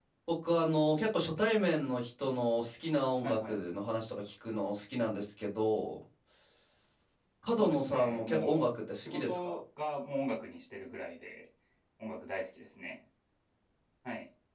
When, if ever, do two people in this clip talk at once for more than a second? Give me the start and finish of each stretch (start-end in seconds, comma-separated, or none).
7.6-9.6